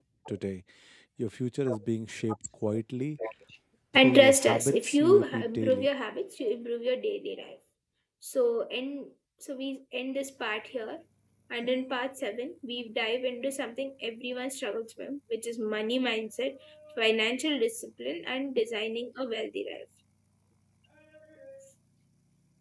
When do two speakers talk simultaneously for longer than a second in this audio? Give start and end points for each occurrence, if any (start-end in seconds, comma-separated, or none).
3.9-5.9